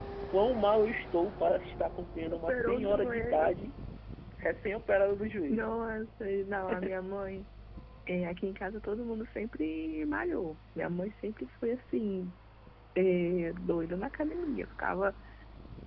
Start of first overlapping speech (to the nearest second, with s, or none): 2 s